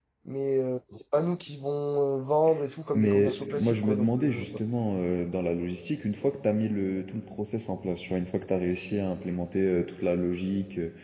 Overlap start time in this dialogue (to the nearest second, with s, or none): 3 s